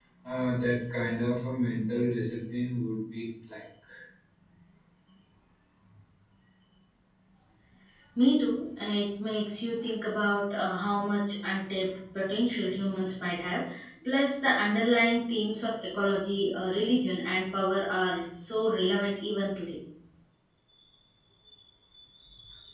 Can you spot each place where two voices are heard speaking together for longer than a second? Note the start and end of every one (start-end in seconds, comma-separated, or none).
none